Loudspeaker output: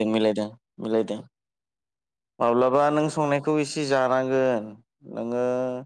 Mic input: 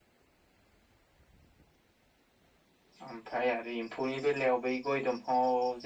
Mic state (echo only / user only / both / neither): user only